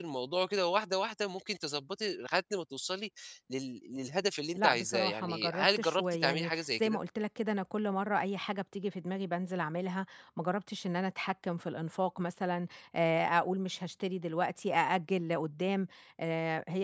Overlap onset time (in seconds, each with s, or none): 4.6 s